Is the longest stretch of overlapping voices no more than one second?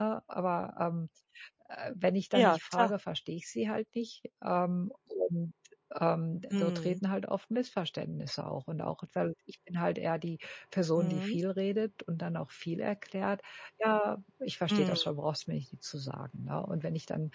Yes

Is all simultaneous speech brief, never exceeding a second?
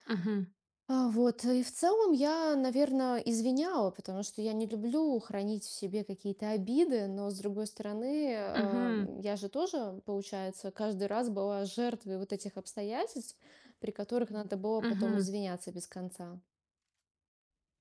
Yes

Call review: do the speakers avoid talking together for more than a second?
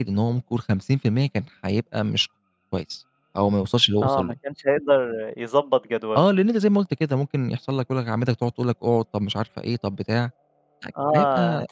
Yes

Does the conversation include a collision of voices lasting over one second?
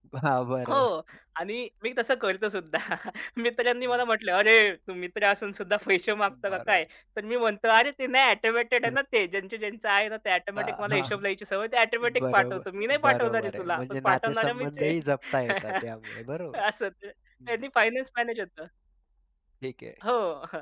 Yes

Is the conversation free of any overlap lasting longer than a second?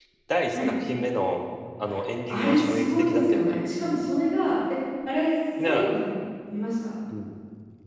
No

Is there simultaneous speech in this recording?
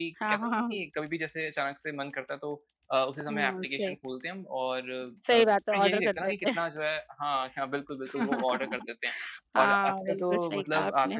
Yes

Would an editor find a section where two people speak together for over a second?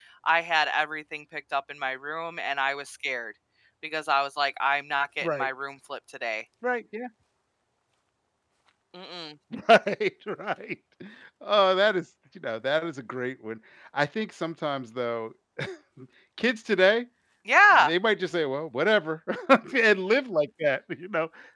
No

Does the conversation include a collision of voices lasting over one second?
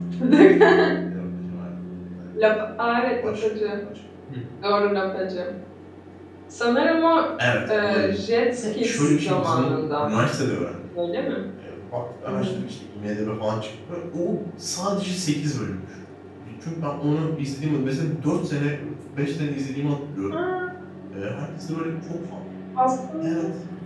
Yes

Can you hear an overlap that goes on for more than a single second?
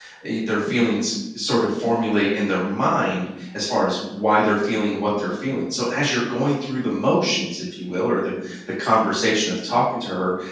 No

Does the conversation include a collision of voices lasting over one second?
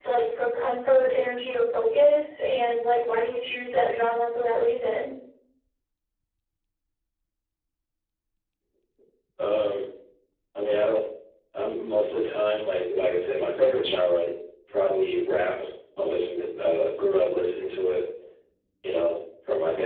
No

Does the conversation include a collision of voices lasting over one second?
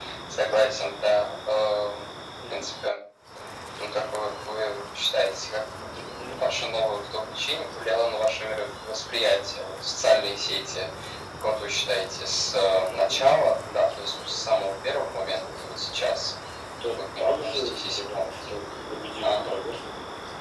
Yes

